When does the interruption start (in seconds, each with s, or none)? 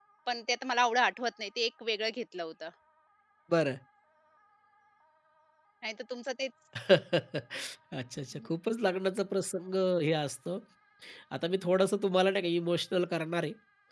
none